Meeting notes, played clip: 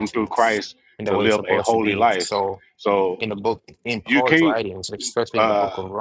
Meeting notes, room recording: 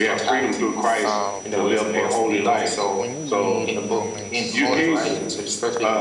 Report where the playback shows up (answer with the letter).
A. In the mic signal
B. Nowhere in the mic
A